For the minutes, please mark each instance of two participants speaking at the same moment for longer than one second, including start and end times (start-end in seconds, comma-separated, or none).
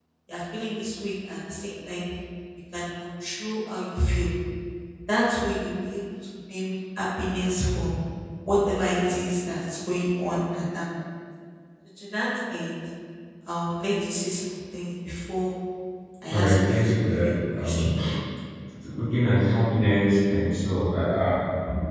16.3-17.9